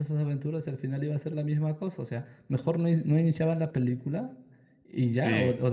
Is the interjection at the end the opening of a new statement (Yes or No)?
No